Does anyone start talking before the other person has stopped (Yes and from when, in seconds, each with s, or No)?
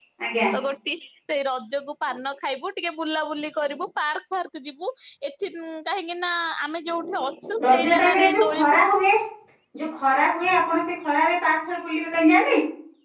Yes, from 7.6 s